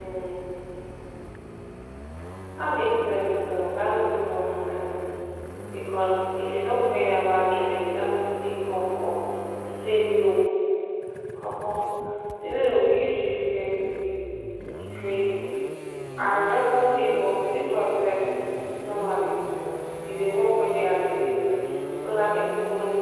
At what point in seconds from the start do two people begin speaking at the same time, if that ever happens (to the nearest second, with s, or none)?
none